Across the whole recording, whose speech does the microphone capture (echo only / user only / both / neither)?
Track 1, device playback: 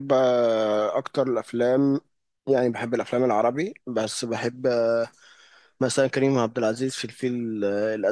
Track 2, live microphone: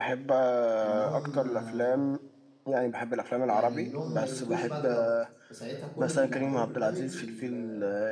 both